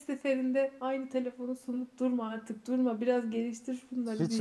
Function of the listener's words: taking over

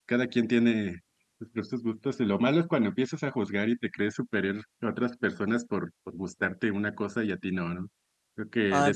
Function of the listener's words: taking over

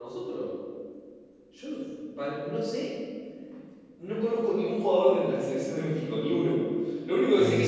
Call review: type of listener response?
listening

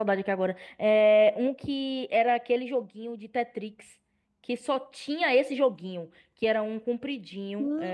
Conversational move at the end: taking over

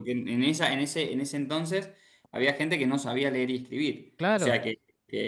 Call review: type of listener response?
listening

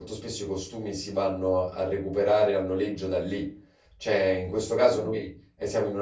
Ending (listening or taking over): listening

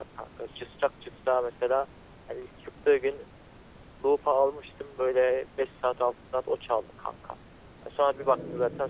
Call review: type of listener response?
listening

